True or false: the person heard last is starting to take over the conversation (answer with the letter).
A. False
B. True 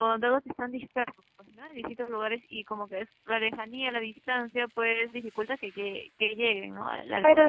B